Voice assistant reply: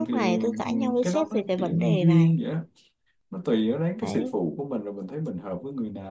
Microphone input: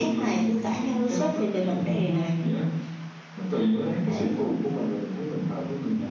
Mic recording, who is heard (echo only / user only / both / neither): echo only